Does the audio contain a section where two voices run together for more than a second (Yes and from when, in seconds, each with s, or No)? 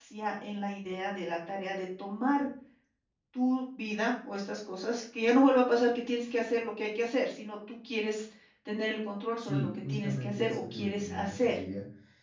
Yes, from 9.4 s